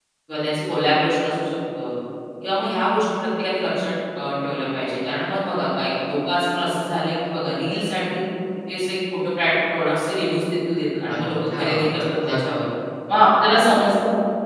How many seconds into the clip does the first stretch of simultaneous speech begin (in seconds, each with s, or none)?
11.1 s